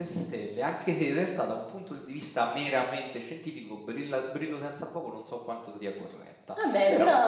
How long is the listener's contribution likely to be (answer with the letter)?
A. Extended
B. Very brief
A